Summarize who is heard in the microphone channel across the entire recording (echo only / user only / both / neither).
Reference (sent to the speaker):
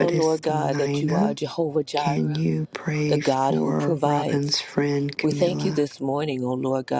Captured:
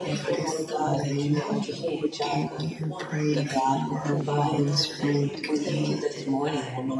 both